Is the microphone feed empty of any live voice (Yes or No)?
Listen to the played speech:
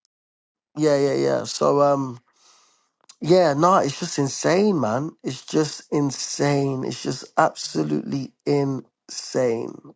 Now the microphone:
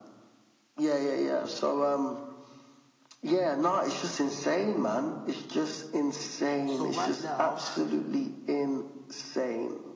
No